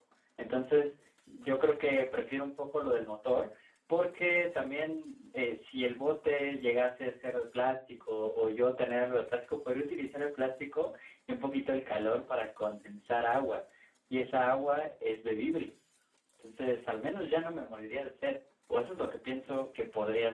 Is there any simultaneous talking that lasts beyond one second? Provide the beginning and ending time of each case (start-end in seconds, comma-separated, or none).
none